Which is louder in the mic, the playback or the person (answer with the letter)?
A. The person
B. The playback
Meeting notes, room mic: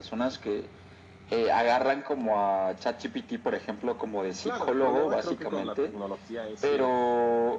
B